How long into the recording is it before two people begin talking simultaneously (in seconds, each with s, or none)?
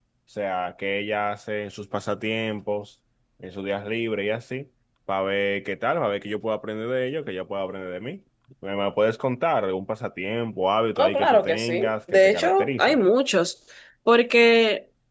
11.0 s